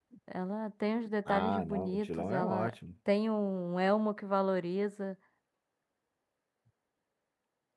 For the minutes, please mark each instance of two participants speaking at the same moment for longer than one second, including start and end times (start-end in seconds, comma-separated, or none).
1.3-2.7